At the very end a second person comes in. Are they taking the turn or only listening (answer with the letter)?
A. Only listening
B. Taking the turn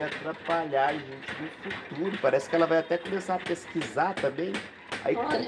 A